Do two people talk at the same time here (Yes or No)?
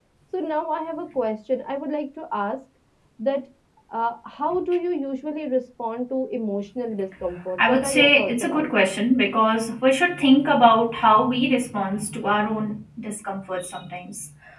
Yes